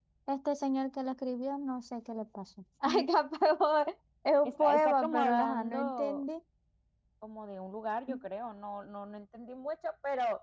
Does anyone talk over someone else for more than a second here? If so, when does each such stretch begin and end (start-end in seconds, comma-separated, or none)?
4.4-6.2